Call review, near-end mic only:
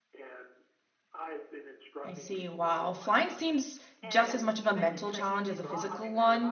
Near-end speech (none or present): present